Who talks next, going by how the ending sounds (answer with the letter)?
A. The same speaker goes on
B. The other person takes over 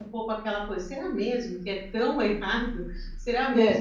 A